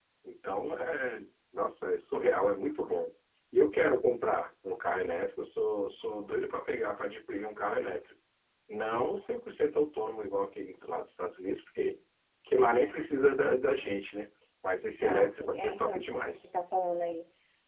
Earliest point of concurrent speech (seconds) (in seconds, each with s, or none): 15.0 s